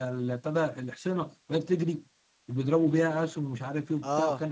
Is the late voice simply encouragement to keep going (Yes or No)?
Yes